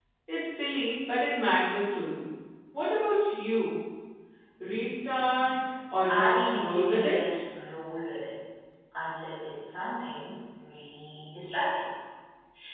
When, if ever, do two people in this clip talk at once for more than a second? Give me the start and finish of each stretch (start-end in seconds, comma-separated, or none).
6.1-7.4